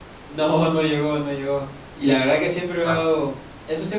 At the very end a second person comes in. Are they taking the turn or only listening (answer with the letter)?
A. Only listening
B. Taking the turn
A